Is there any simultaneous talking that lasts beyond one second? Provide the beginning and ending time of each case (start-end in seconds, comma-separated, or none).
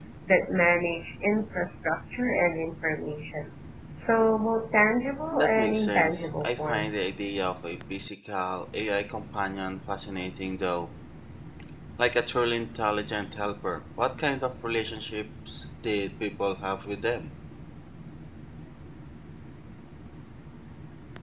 5.3-6.9